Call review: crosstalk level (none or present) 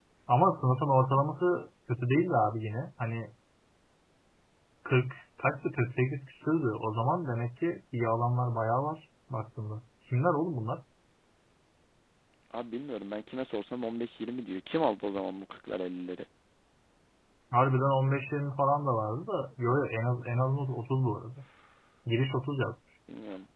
none